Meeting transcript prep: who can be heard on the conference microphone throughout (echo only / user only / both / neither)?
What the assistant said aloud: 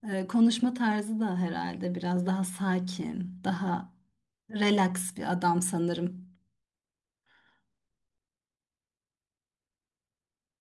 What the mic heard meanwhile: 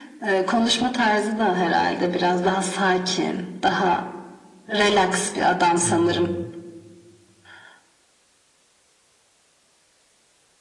both